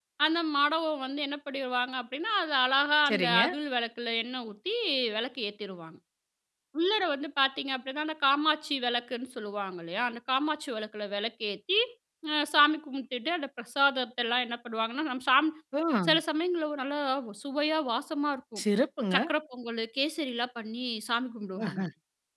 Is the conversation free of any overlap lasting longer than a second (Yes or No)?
Yes